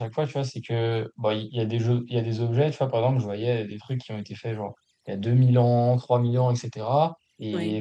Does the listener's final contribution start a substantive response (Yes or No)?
No